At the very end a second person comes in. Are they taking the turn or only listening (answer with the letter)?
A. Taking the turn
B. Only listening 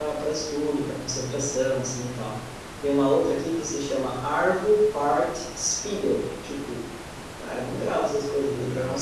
B